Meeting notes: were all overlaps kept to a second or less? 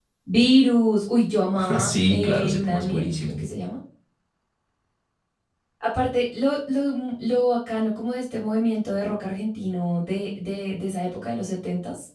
No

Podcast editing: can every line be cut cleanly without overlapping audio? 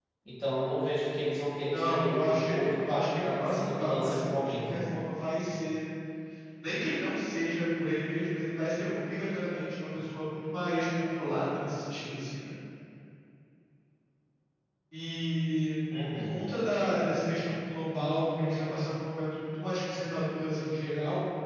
No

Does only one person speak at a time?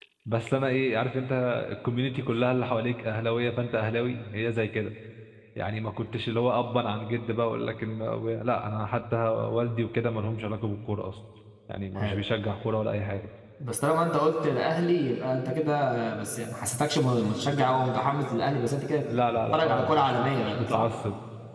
No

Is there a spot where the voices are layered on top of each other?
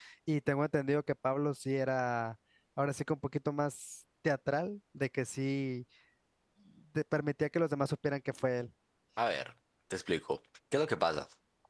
No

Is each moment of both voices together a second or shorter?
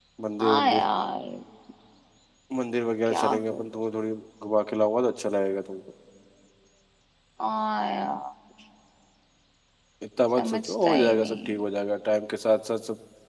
No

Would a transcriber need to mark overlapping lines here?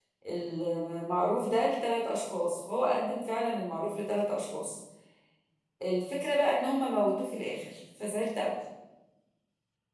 No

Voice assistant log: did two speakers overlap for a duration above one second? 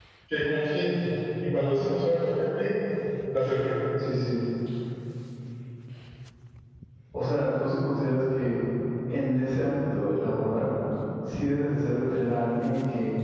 No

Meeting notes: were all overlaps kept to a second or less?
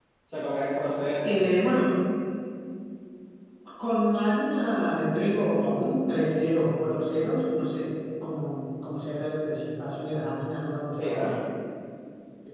Yes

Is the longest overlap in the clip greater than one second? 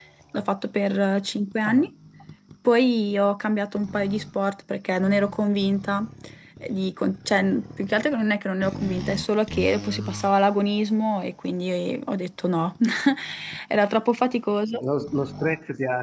No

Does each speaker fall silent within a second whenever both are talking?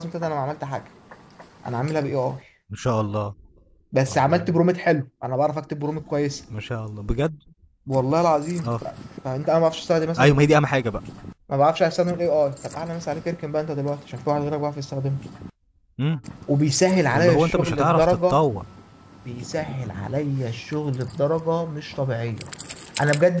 No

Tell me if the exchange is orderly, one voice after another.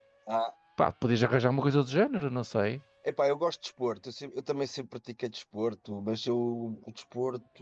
Yes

